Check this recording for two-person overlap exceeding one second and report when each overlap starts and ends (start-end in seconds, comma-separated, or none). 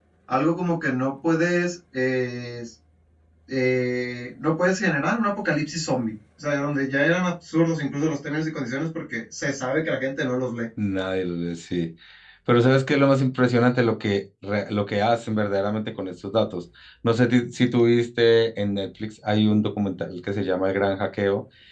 none